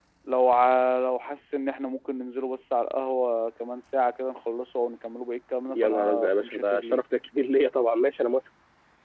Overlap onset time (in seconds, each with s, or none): 5.7 s